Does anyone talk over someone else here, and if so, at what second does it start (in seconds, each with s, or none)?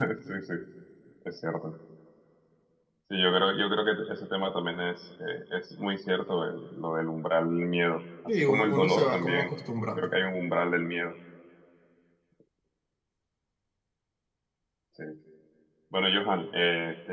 8.3 s